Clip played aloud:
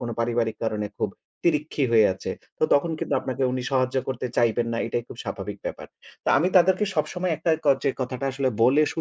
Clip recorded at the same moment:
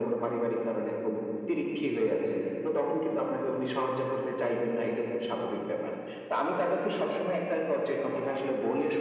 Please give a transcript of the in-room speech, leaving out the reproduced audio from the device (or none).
none